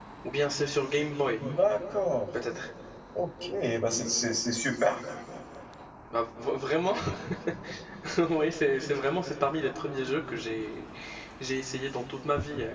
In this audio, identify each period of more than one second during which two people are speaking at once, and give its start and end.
none

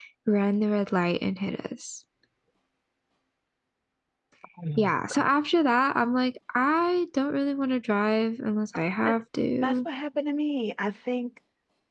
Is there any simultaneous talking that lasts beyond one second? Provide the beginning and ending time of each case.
none

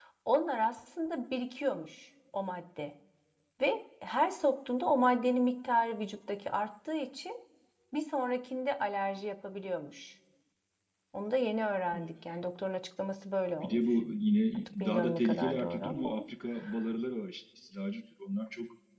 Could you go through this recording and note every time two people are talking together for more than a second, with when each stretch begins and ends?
14.5-16.2

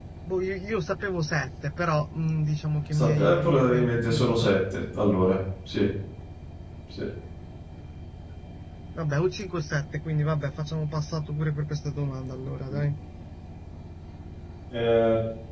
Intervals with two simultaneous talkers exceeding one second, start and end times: 2.9-4.5

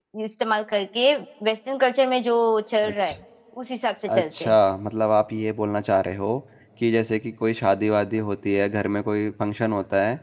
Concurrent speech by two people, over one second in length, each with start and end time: none

